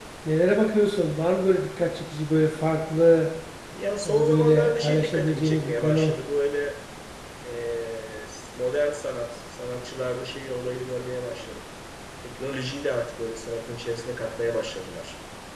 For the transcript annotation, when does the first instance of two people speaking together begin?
4.0 s

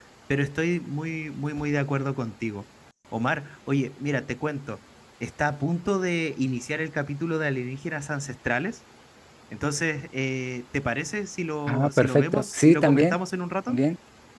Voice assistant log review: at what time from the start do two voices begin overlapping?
11.7 s

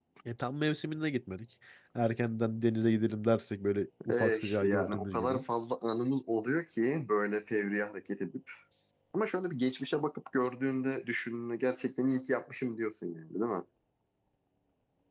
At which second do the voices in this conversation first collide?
4.1 s

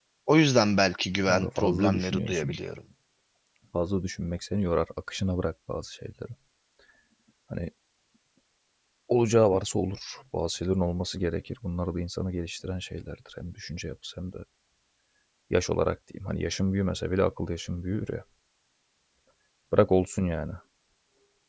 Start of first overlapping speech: 1.3 s

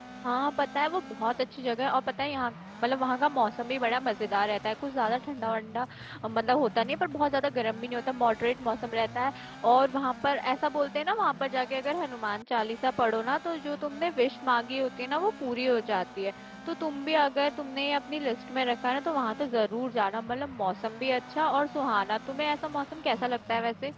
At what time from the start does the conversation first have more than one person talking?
none

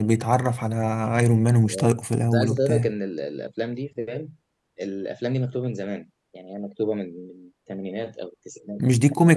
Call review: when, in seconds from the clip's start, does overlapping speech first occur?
1.6 s

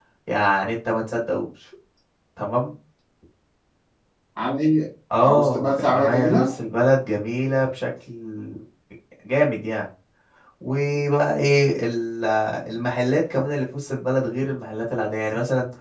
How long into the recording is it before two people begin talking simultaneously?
5.2 s

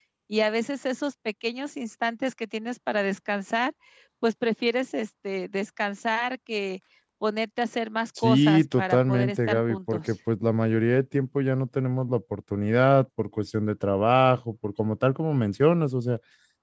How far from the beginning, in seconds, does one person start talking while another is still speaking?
8.2 s

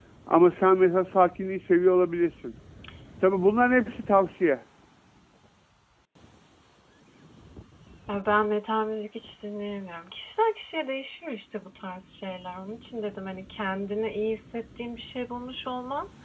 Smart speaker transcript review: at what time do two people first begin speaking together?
none

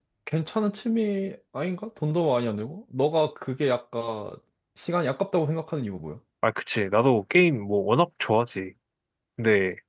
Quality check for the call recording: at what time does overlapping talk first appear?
none

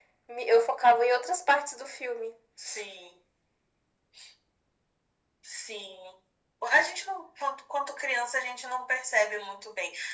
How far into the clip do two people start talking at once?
none

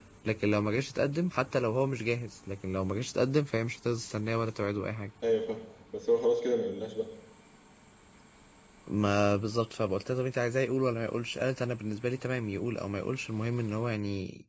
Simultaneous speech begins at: none

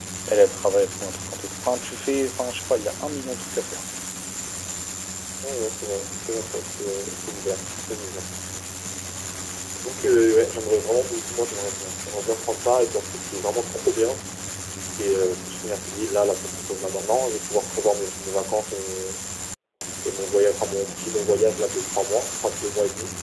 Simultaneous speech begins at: none

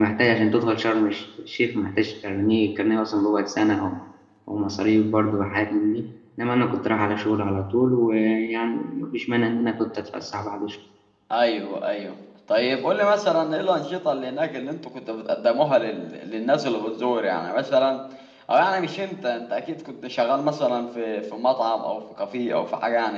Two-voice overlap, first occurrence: none

